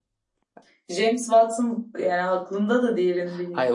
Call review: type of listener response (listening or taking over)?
taking over